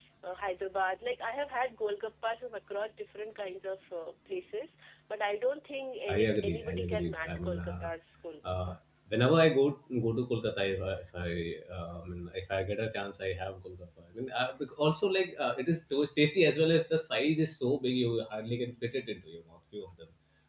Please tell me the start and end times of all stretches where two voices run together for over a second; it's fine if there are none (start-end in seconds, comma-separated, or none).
6.1-7.9